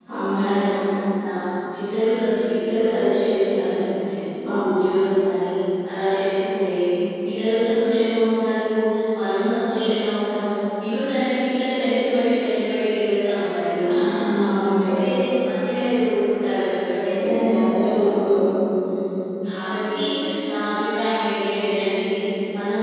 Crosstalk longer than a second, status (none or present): none